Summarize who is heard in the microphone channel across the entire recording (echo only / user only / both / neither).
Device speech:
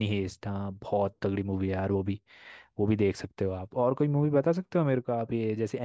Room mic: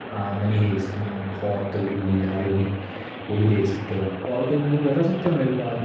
echo only